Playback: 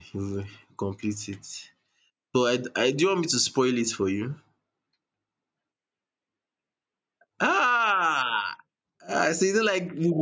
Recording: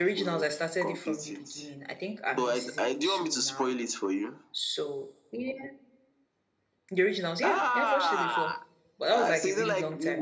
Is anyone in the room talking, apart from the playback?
Yes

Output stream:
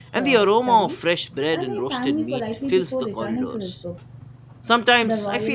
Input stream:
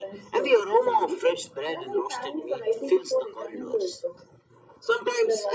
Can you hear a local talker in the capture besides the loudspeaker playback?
No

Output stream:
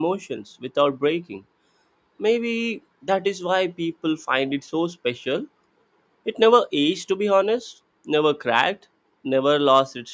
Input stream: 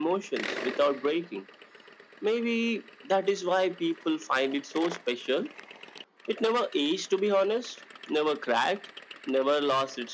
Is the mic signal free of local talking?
Yes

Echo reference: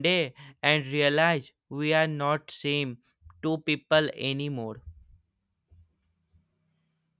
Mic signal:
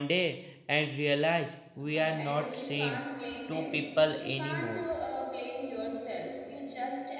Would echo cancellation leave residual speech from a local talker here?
Yes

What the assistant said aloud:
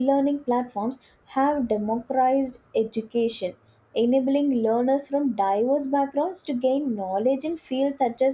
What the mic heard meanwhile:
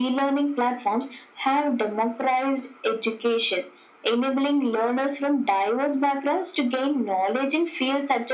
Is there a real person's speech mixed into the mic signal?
No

